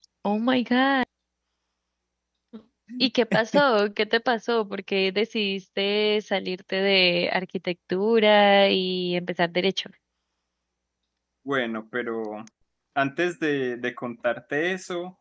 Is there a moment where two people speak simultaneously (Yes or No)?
No